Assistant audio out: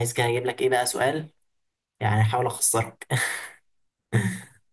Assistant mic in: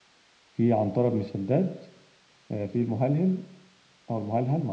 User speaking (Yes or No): Yes